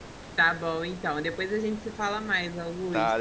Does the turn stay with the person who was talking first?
No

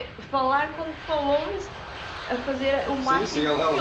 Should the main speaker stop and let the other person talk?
Yes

